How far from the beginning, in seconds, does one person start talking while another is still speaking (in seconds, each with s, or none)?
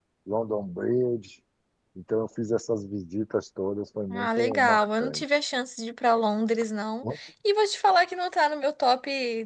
4.1 s